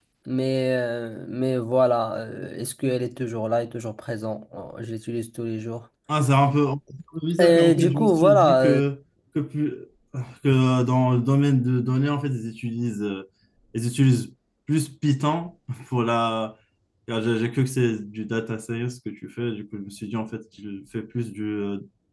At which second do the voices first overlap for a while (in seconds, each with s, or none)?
7.4 s